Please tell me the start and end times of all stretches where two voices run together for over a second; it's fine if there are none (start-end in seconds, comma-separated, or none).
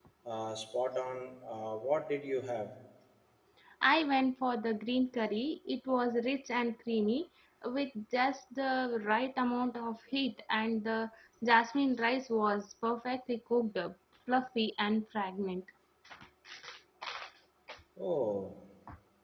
none